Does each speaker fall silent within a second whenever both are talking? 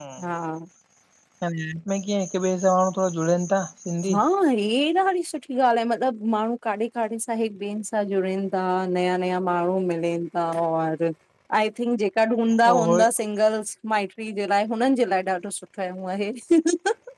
Yes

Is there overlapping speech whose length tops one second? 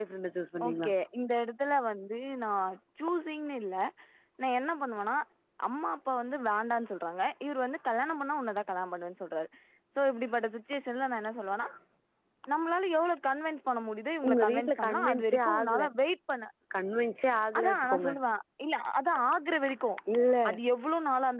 Yes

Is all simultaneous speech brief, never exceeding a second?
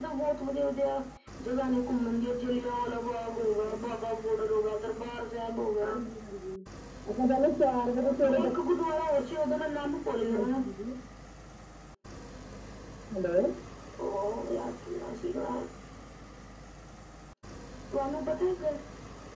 Yes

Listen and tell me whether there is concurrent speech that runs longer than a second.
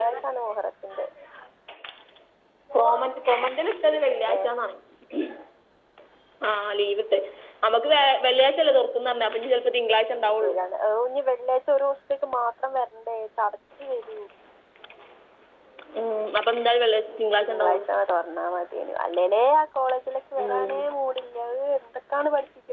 No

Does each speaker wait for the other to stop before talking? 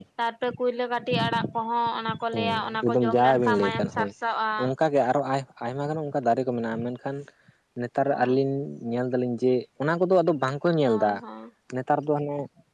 No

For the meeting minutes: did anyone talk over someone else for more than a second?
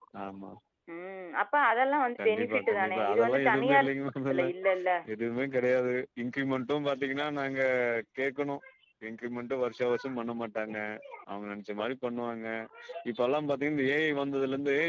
Yes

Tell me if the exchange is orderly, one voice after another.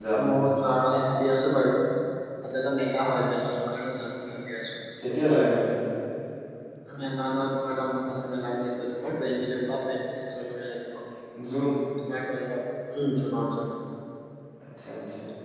Yes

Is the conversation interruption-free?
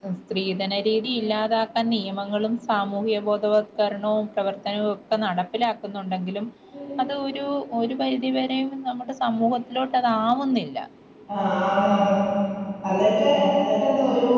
Yes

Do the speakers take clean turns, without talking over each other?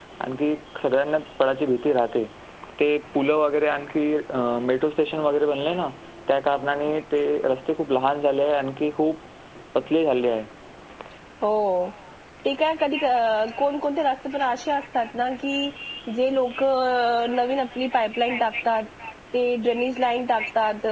Yes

